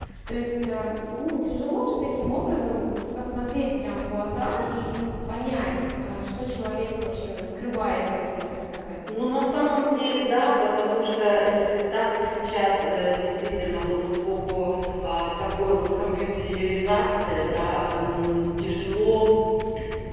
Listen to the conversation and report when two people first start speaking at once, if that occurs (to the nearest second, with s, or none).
none